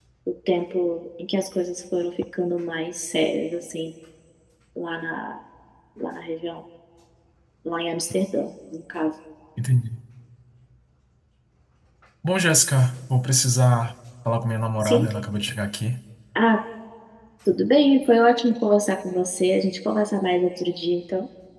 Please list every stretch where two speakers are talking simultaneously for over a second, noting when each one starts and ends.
none

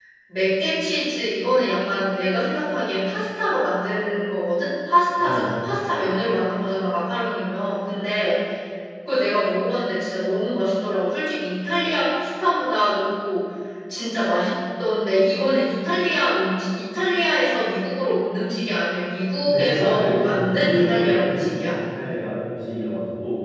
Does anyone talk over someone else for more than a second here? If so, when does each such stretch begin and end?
19.3-21.6

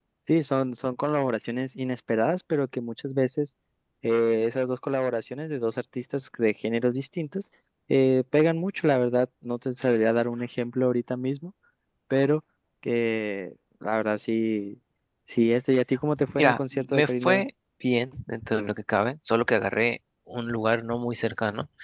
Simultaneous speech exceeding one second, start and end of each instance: 16.2-17.4

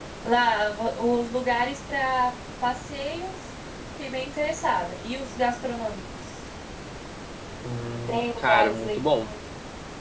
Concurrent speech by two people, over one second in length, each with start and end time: 8.1-9.3

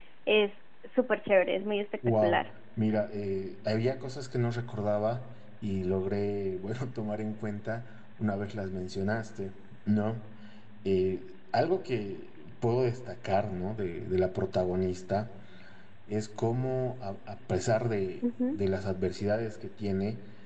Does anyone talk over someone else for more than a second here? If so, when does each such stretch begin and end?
none

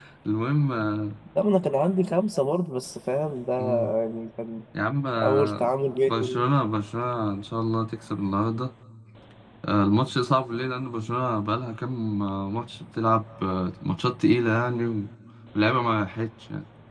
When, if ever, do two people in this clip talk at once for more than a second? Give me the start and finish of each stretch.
none

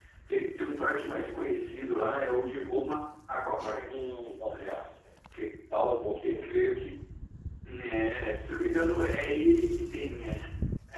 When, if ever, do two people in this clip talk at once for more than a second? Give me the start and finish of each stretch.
none

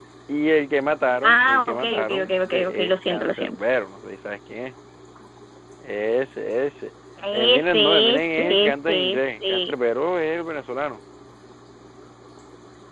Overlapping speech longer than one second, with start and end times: 1.2-3.5, 7.3-9.7

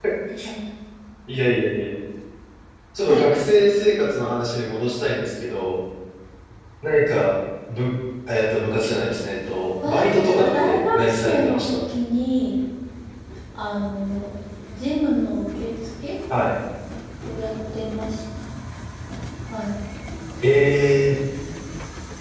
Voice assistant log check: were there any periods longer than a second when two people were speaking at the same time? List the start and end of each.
9.8-11.8

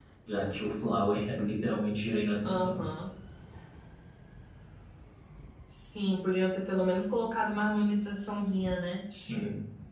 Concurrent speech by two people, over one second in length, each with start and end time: none

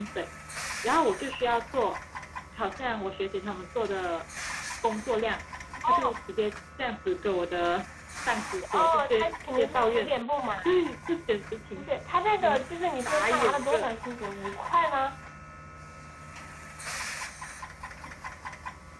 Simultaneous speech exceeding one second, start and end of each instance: 8.7-10.1, 12.4-13.9

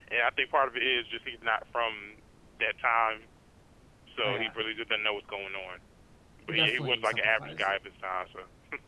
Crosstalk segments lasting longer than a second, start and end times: 6.5-7.8

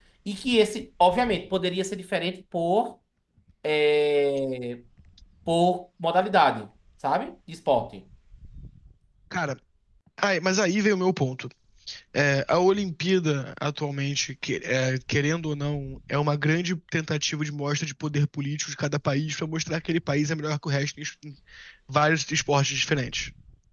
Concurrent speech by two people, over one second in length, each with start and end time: none

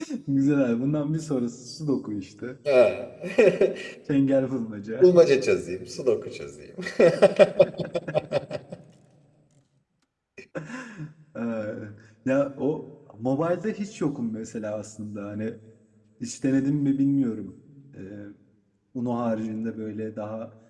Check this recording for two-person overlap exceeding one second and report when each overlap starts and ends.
none

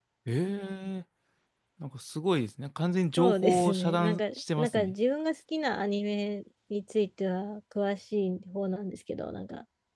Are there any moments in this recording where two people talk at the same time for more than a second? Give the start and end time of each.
3.2-4.9

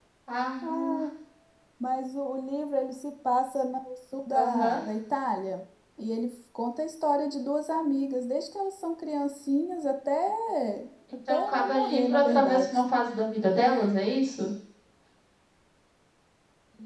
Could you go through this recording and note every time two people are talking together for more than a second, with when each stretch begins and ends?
11.3-12.9

